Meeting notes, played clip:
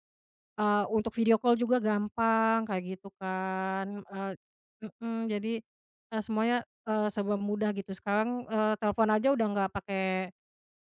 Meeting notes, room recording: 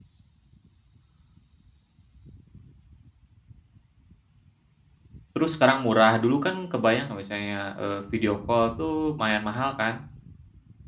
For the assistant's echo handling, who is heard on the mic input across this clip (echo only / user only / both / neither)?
user only